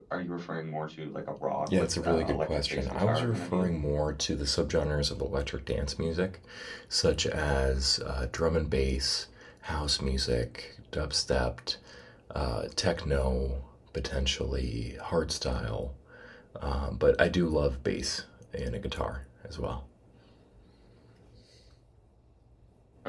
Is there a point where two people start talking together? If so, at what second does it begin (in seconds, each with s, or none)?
1.6 s